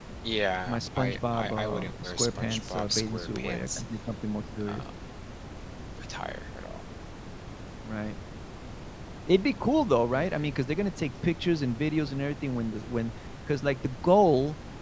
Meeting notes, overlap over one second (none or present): present